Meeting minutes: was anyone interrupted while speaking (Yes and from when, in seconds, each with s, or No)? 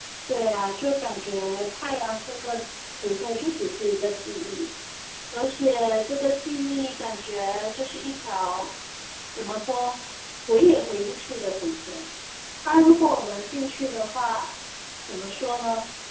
No